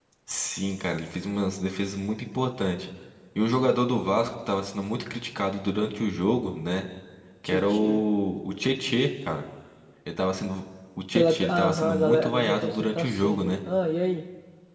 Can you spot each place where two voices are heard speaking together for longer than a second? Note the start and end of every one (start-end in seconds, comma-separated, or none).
11.2-13.5